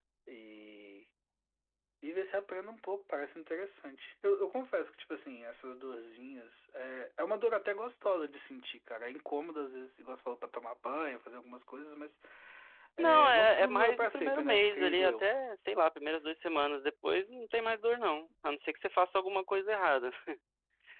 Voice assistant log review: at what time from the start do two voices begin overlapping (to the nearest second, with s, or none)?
13 s